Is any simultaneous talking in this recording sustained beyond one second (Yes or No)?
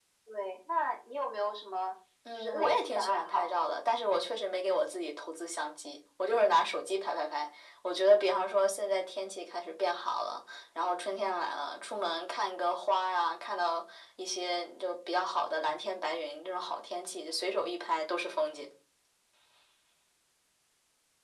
Yes